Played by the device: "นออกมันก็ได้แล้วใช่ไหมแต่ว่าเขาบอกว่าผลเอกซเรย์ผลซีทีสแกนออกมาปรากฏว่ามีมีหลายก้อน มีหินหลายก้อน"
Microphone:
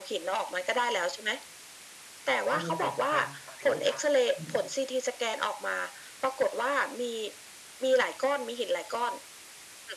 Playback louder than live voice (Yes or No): Yes